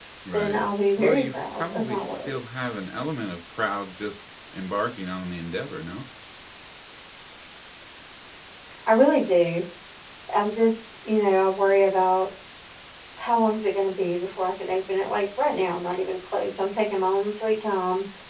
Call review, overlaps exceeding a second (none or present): present